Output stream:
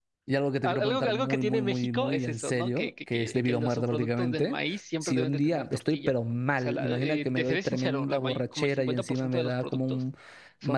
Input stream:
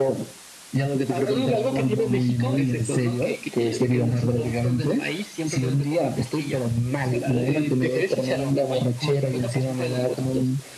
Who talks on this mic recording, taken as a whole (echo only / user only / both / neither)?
echo only